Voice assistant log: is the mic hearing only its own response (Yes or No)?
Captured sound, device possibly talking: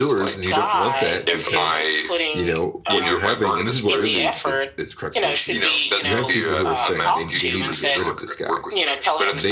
No